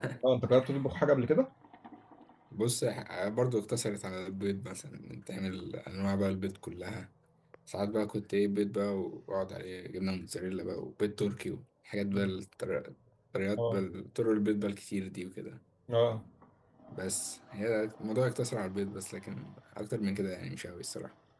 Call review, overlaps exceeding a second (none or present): none